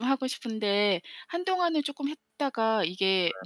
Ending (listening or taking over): listening